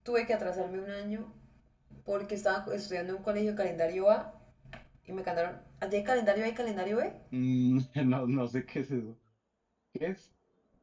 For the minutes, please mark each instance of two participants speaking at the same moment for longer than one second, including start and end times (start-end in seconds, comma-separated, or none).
none